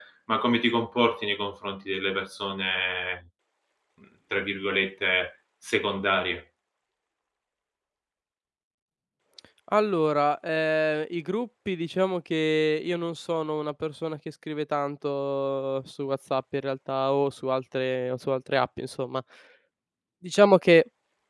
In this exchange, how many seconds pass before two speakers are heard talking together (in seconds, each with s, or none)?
none